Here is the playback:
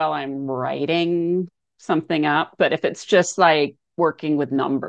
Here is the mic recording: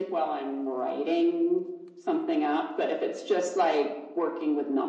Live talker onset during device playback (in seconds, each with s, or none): none